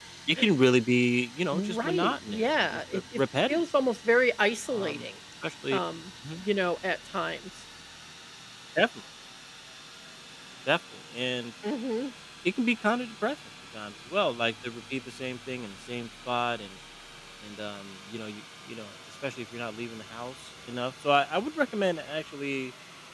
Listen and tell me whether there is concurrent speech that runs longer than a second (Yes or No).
Yes